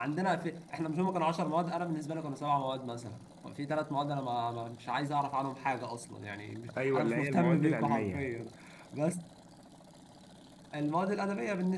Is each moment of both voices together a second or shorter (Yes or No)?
No